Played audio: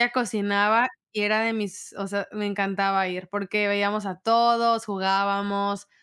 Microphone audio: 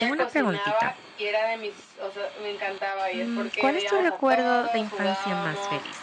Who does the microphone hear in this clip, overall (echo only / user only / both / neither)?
both